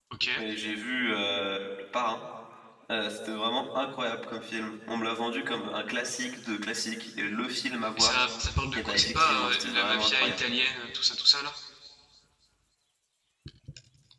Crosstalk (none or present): present